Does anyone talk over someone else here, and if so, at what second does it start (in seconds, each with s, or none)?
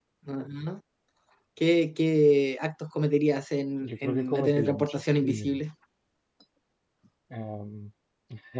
3.8 s